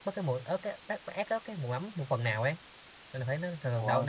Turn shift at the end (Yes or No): No